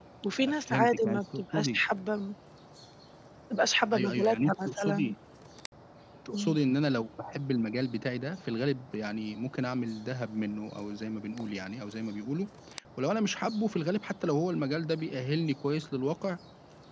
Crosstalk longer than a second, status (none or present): present